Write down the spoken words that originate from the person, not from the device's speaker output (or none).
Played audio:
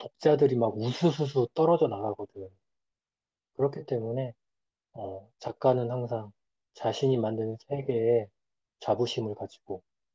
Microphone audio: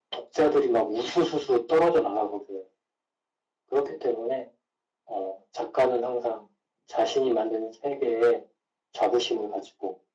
none